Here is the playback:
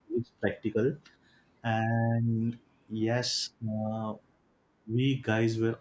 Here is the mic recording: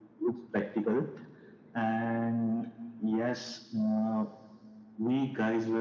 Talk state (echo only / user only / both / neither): echo only